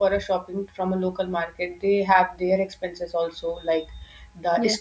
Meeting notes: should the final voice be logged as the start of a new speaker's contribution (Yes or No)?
No